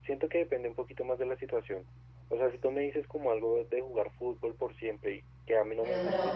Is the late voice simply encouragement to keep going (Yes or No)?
No